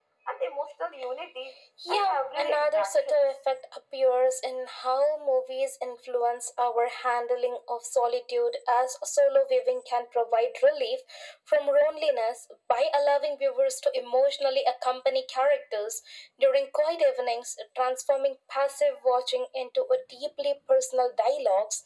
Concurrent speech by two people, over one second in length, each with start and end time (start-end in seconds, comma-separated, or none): 1.9-3.2